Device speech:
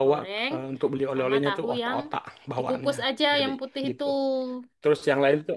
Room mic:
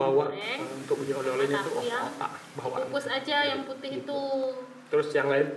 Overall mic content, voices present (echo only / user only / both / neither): echo only